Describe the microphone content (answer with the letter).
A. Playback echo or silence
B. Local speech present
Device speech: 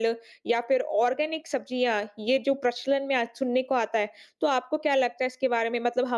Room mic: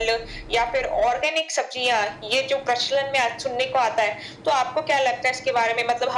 A